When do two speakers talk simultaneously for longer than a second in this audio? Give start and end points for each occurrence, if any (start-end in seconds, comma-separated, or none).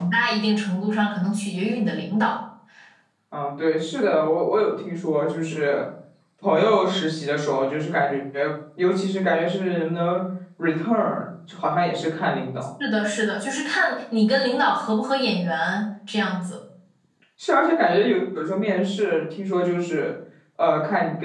none